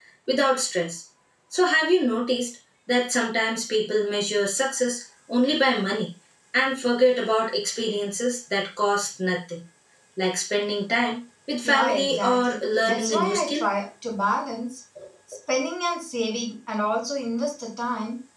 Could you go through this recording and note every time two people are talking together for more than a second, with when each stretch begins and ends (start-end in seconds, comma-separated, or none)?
11.6-13.6